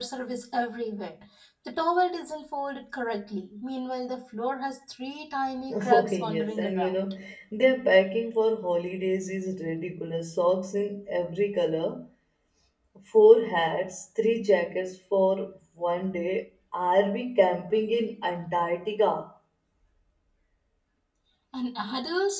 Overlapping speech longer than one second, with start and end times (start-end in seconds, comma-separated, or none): 5.7-7.0